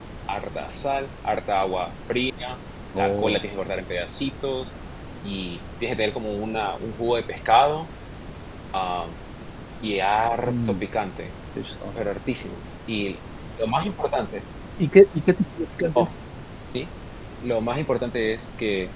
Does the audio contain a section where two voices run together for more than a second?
No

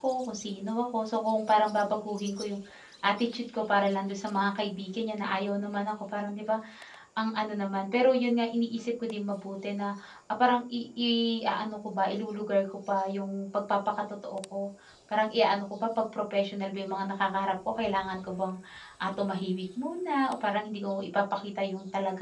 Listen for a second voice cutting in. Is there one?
No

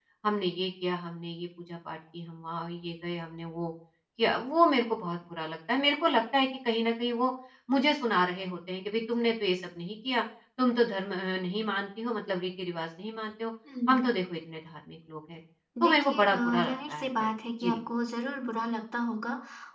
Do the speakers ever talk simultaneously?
Yes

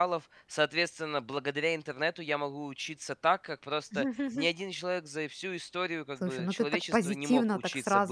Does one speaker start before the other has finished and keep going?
Yes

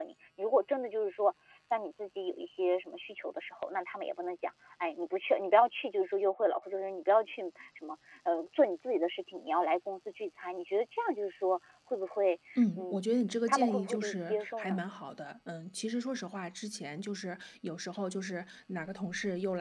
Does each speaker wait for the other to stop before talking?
No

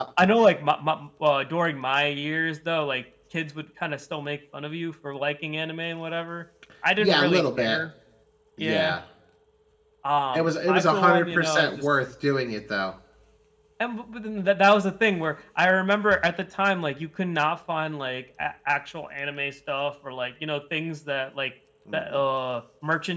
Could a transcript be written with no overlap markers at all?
No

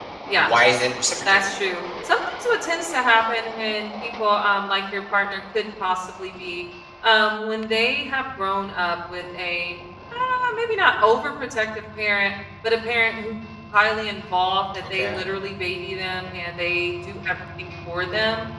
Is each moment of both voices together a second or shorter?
Yes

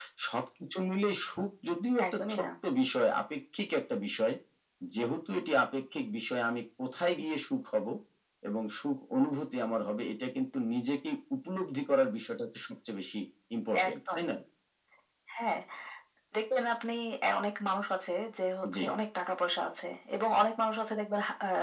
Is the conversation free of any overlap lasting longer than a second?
Yes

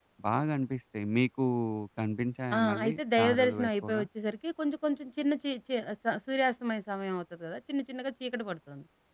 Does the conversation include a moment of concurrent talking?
Yes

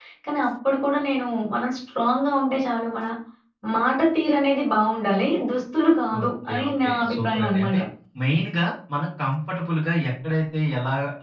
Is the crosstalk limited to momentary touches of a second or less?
No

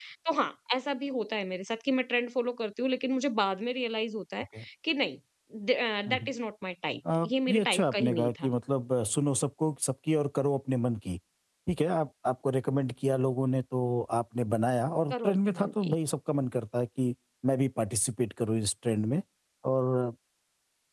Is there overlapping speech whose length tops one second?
Yes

